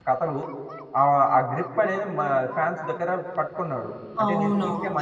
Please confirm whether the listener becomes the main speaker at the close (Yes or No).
Yes